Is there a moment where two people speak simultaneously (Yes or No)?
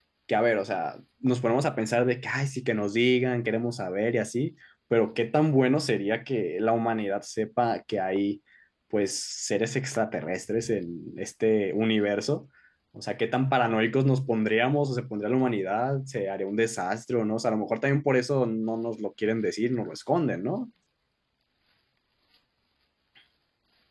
No